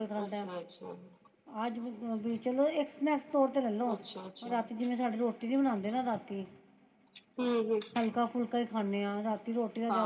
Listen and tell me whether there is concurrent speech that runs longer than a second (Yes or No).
No